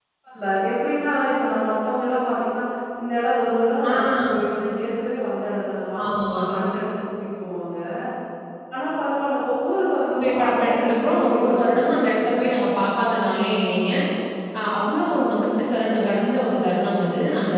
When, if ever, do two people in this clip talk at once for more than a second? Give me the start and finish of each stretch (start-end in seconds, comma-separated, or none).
10.1-12.3